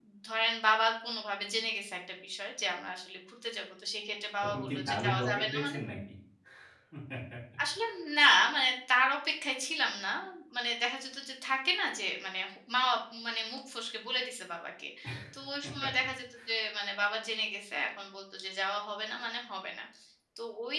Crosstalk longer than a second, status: present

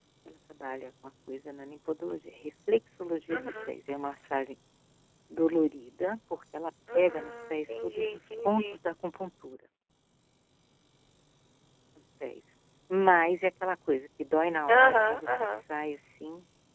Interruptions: present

